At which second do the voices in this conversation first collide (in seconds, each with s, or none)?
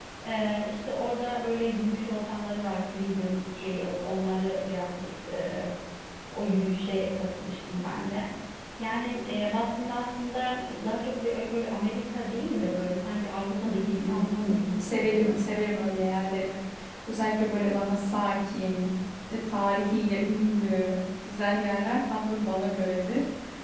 13.6 s